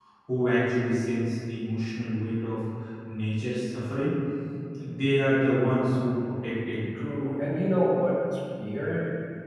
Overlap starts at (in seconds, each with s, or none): none